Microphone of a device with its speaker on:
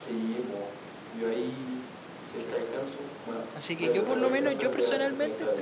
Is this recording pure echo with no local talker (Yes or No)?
No